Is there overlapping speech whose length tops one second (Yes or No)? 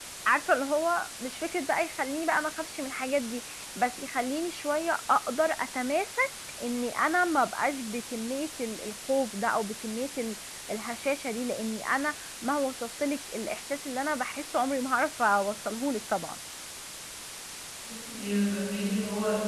No